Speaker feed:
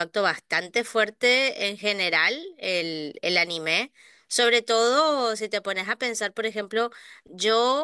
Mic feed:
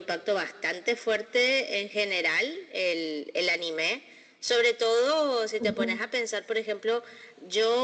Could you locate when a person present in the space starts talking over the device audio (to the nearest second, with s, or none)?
6 s